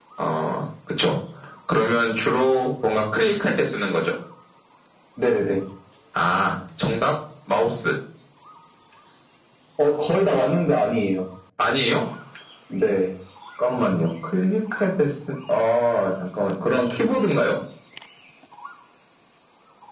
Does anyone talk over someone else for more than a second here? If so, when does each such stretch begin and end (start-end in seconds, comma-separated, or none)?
none